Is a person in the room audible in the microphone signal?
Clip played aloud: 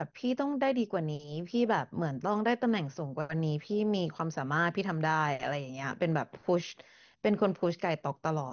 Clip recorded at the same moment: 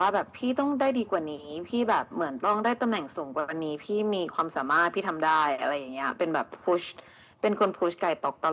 No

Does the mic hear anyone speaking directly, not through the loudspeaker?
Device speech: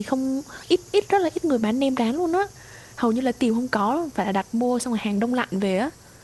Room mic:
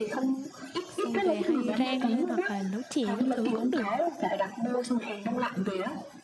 Yes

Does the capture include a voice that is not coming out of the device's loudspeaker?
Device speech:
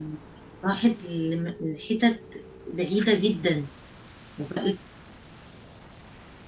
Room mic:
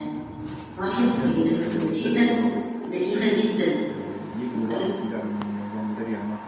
Yes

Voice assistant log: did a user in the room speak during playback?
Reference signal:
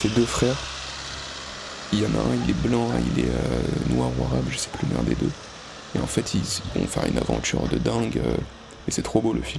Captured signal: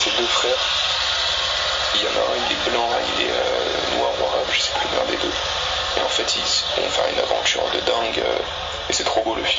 No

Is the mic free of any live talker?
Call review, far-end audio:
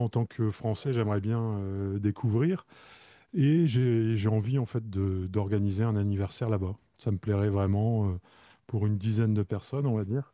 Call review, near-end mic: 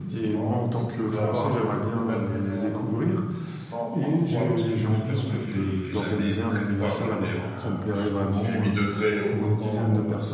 No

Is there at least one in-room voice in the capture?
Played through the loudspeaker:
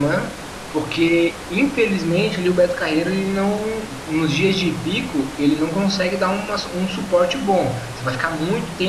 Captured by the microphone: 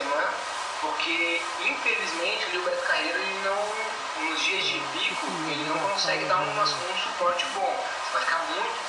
Yes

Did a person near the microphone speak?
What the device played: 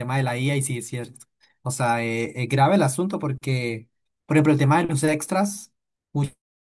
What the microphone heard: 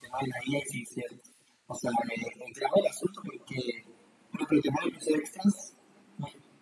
No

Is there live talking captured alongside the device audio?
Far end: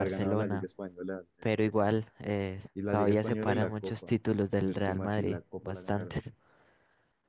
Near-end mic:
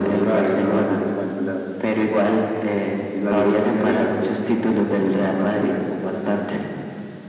No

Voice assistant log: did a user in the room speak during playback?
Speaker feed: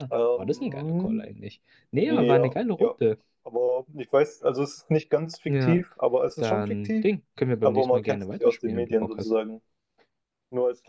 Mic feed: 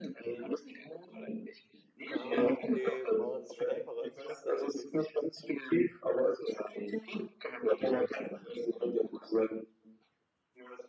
Yes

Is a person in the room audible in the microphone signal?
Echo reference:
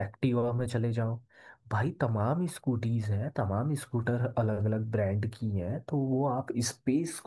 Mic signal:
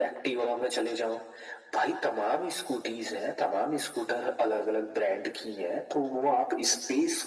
No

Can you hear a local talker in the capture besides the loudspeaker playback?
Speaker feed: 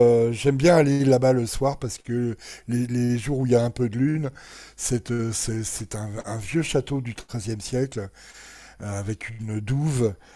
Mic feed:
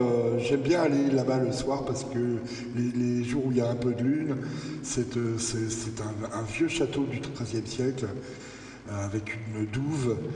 No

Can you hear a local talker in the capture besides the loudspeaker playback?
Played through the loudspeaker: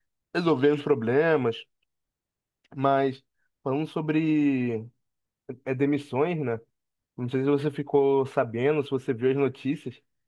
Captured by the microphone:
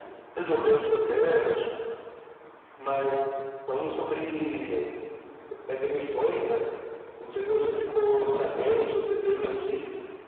No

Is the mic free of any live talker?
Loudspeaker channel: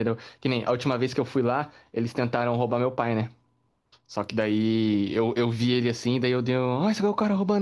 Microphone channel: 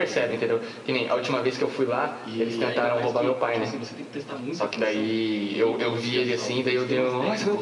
No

